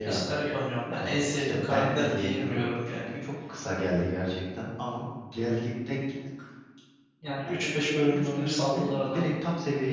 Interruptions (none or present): present